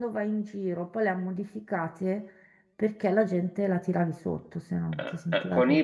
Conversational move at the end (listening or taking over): taking over